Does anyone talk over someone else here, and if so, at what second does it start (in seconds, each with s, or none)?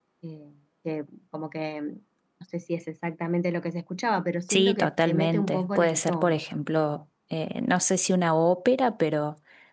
4.5 s